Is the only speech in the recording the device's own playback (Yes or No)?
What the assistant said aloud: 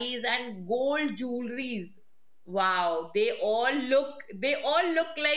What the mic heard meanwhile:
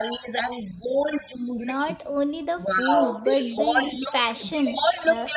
No